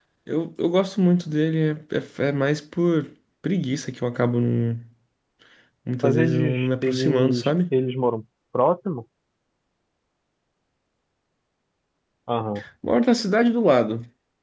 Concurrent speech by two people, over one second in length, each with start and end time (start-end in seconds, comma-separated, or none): 6.0-7.5